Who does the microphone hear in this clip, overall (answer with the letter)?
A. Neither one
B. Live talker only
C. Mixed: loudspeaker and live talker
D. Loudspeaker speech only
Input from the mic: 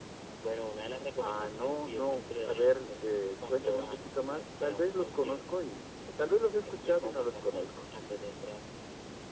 D